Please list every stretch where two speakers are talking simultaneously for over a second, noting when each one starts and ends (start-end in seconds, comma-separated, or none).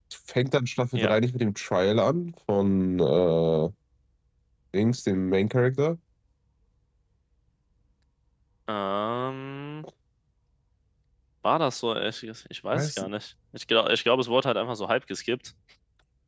none